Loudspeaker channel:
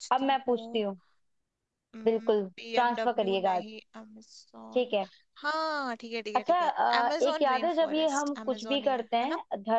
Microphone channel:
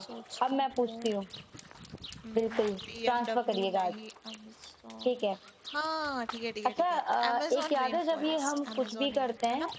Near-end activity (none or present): none